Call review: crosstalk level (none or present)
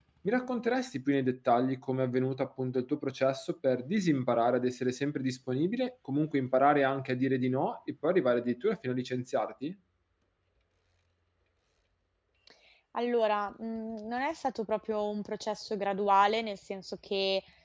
none